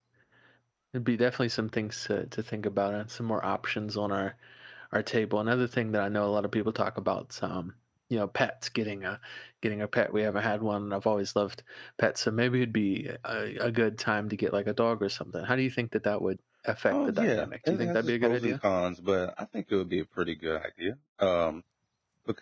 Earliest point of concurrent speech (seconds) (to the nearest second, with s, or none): 17 s